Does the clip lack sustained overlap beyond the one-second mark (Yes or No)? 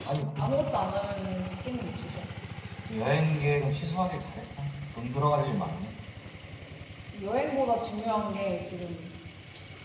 Yes